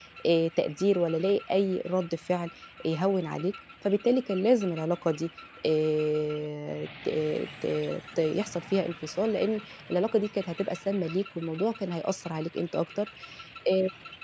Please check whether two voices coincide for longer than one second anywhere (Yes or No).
No